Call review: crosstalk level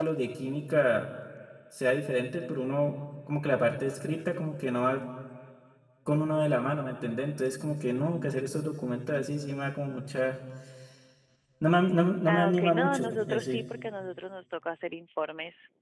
present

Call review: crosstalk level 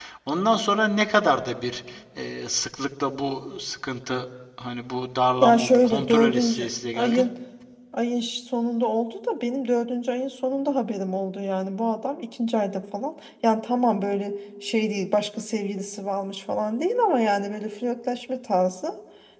present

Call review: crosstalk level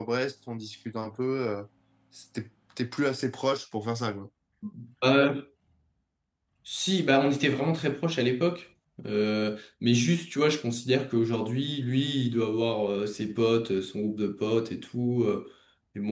none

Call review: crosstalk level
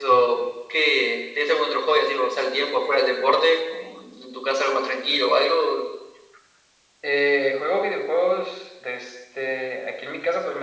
none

